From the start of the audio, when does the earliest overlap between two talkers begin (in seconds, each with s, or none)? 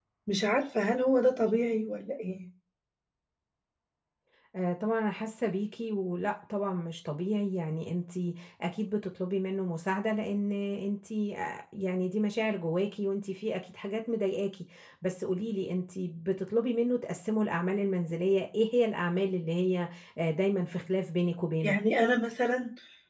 none